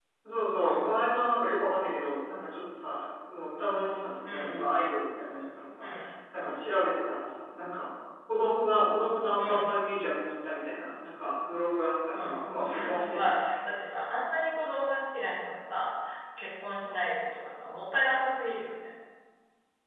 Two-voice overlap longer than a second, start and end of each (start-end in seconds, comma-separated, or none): 12.1-13.6